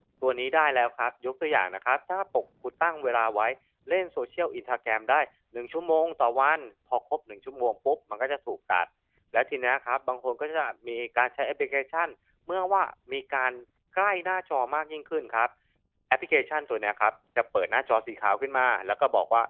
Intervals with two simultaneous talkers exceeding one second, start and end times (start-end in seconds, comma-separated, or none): none